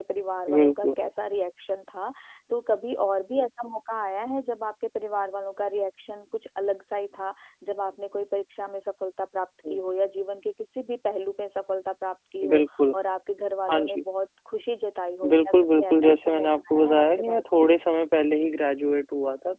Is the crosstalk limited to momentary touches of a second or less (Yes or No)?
No